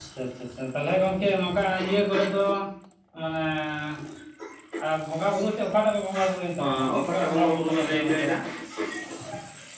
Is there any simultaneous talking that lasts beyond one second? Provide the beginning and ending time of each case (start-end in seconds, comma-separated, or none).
6.6-8.3